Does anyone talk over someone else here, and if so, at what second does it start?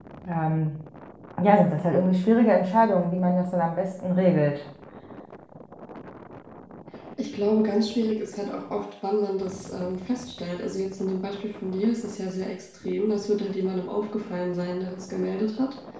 none

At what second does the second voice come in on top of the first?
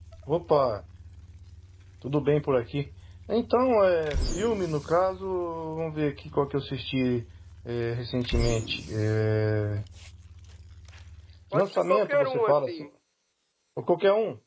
12 s

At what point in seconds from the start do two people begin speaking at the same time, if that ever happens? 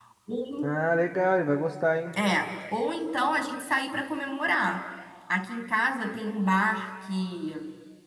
none

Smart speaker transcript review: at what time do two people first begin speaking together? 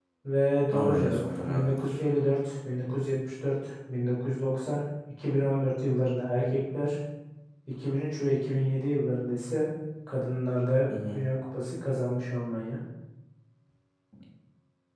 1 s

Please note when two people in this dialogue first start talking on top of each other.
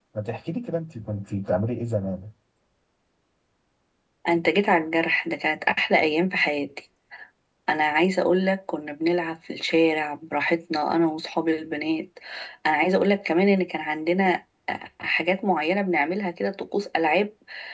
none

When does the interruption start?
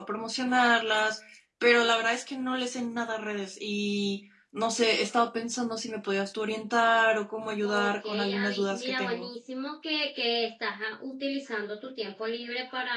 8 s

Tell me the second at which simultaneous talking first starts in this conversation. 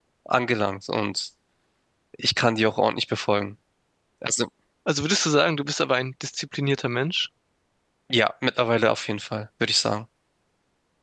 none

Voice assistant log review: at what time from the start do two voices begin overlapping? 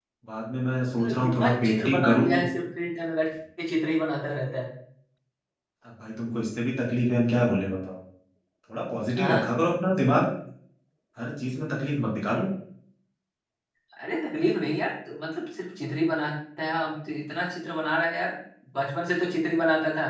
1 s

